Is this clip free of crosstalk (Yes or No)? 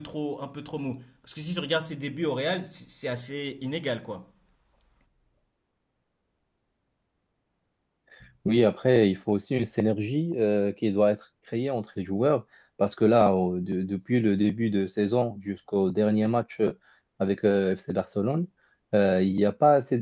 Yes